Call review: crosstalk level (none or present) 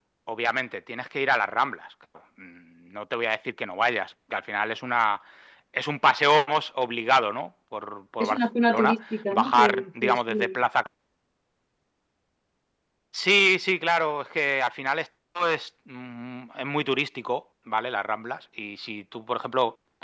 present